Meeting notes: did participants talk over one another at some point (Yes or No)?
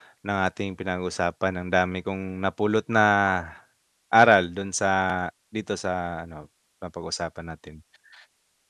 No